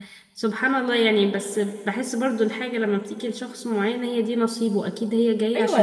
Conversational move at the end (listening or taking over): taking over